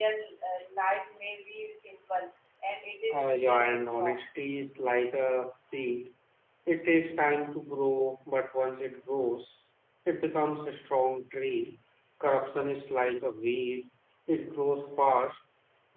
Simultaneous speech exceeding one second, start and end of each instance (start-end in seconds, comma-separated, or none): 3.1-4.3